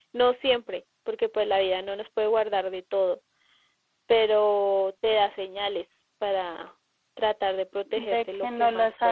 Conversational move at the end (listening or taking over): taking over